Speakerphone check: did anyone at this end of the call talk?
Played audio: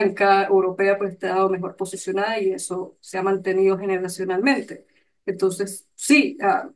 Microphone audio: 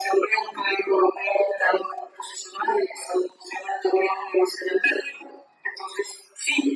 No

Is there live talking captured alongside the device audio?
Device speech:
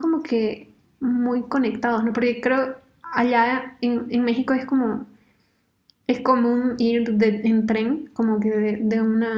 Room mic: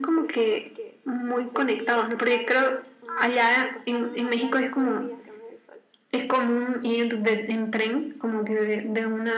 Yes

